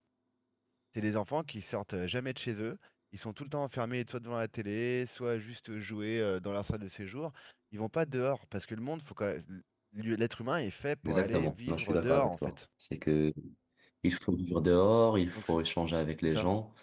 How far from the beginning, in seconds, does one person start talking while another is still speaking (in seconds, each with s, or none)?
11.0 s